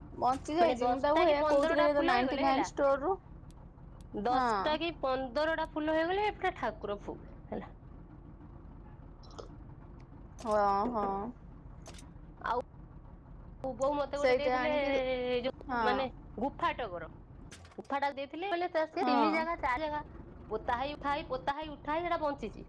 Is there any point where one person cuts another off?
Yes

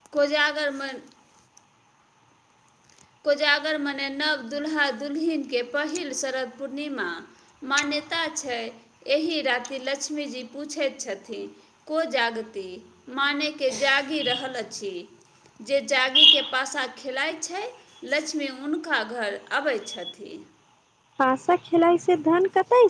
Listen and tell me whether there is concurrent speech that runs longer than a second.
No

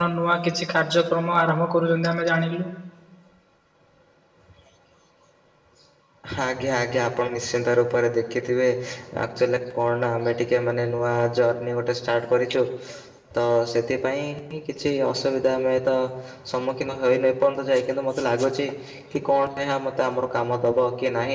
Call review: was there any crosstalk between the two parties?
No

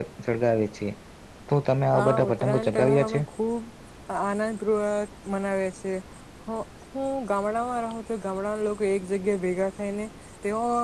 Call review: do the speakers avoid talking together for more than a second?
No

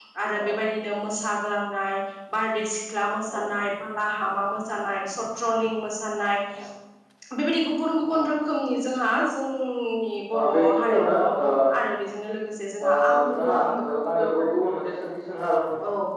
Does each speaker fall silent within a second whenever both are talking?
No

